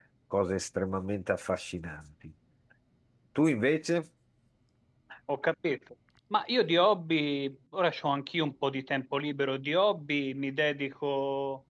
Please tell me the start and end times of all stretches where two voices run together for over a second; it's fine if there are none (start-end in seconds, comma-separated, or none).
none